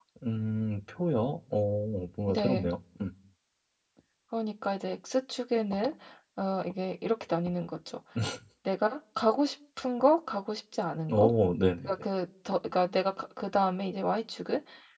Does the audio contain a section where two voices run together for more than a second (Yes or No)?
No